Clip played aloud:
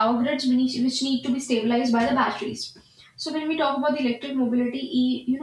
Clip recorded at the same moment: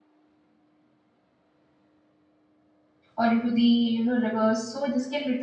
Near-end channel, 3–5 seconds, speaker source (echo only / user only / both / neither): user only